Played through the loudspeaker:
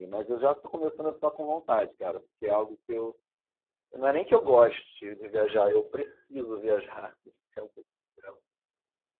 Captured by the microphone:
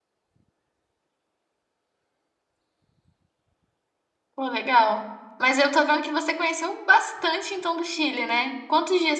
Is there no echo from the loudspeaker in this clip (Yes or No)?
Yes